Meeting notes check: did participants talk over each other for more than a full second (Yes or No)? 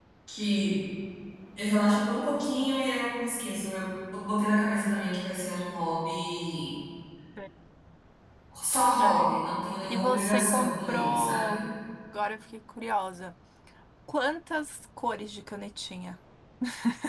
Yes